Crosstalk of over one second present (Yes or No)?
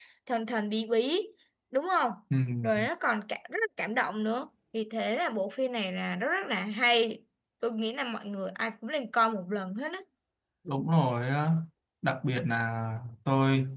No